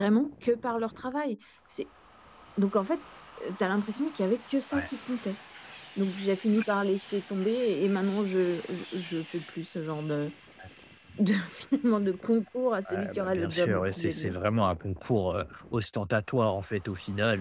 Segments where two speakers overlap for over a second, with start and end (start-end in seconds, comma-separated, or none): 12.9-14.3